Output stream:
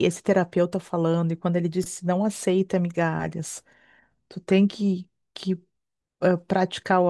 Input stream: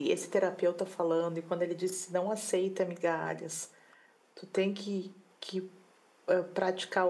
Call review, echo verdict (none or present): present